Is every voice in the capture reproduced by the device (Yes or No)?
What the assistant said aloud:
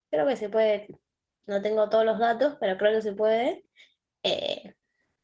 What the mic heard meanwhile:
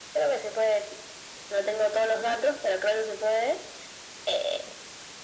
Yes